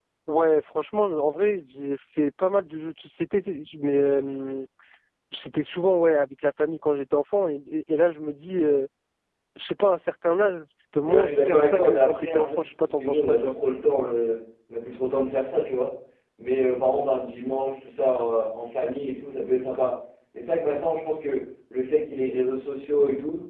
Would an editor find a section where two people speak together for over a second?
Yes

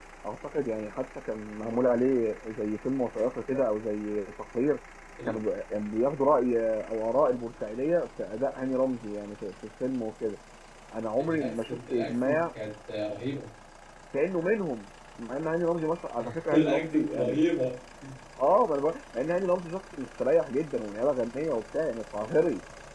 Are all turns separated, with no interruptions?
No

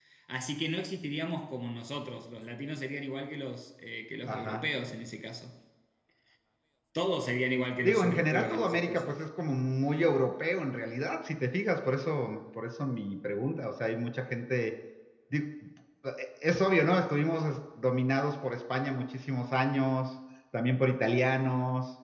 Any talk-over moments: Yes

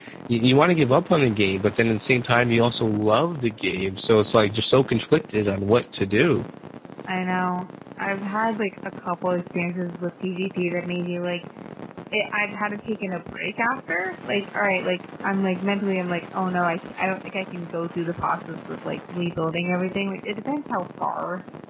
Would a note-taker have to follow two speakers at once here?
No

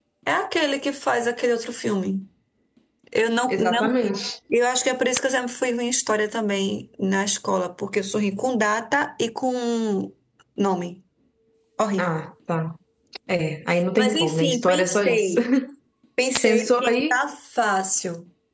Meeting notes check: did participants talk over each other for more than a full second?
Yes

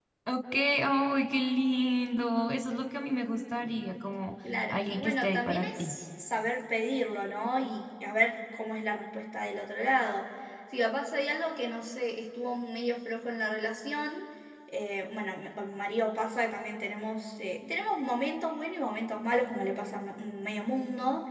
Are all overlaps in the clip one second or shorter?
No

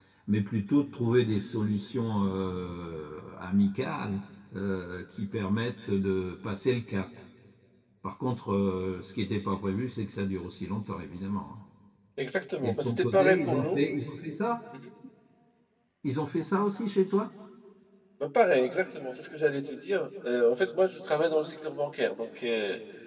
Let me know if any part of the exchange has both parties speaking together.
Yes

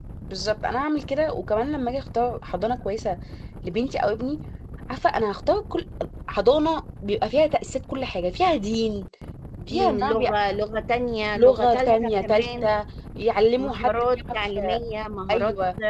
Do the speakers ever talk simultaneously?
Yes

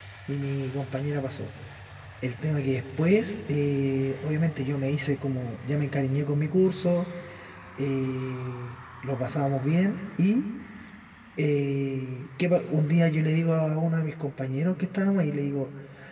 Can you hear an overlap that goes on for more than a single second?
No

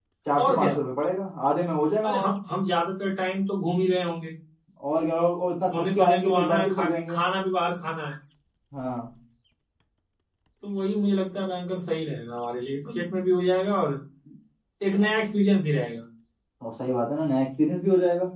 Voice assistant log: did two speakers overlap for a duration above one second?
Yes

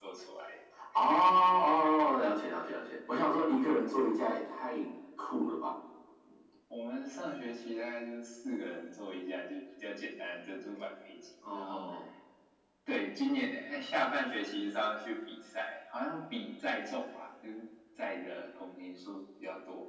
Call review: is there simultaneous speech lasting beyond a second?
No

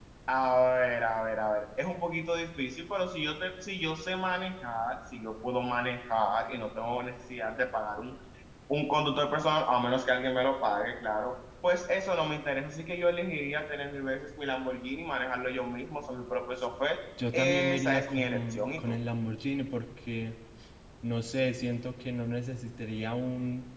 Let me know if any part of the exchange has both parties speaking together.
Yes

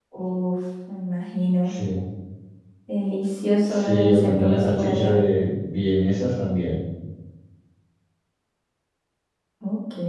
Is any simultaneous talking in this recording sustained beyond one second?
Yes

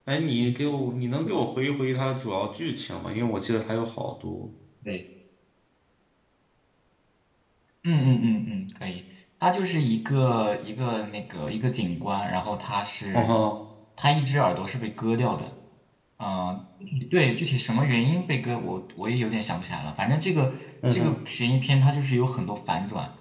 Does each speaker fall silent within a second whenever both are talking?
Yes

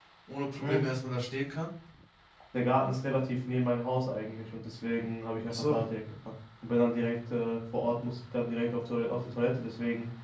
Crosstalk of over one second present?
No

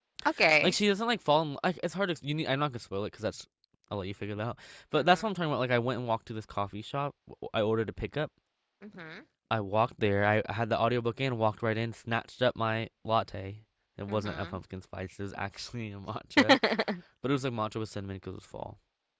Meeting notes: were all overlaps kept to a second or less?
Yes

